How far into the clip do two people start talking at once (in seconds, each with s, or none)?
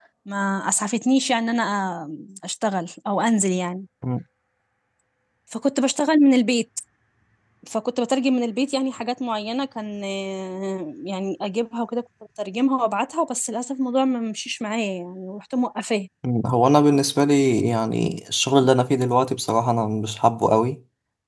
none